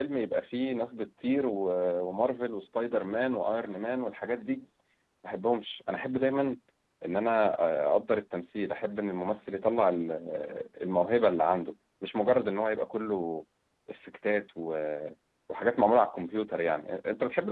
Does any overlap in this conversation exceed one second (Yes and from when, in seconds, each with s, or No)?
No